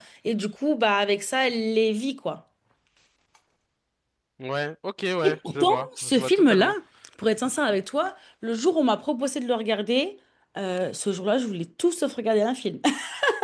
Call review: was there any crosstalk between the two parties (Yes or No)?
Yes